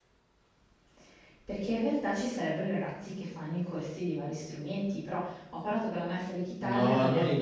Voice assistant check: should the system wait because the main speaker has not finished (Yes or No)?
No